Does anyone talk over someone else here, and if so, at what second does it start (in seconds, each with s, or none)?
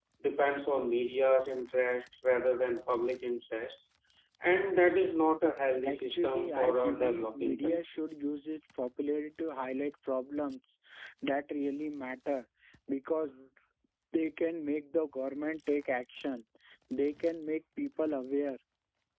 5.8 s